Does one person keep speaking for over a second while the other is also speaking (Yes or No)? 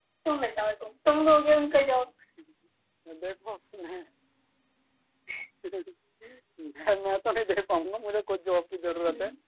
No